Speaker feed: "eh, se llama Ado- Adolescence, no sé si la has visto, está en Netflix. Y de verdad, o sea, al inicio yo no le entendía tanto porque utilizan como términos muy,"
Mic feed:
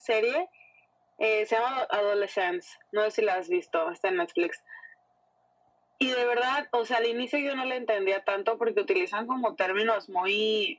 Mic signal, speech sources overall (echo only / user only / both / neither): echo only